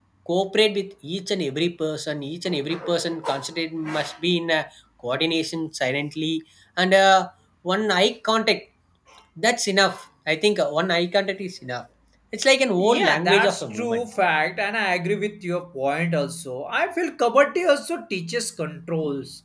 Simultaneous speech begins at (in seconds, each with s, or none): 12.8 s